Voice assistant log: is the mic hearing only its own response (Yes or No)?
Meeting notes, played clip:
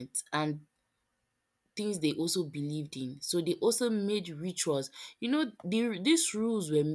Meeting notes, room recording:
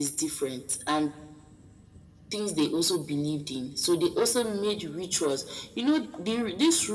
Yes